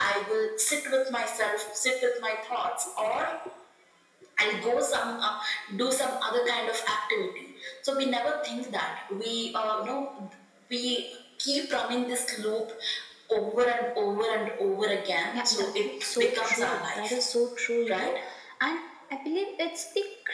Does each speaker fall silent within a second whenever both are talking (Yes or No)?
No